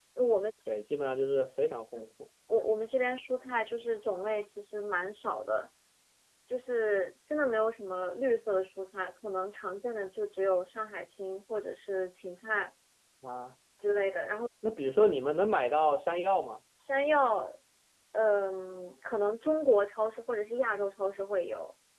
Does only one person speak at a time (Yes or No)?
Yes